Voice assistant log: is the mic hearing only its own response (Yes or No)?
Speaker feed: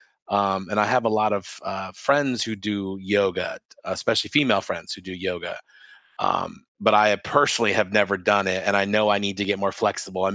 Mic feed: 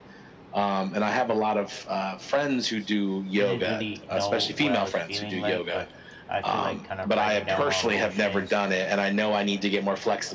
No